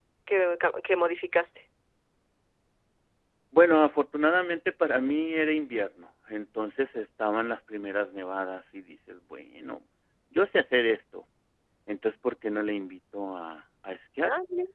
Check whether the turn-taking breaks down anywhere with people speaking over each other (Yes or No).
No